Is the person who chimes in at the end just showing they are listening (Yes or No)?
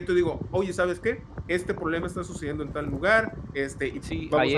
No